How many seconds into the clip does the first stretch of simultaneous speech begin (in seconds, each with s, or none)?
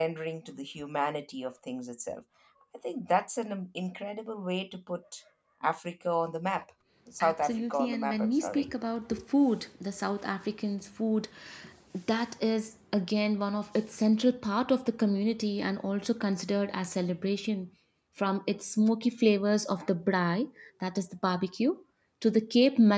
7.2 s